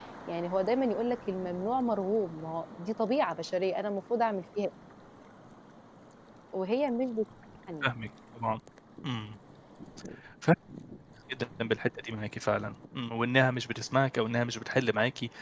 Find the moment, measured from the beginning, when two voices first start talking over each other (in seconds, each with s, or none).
none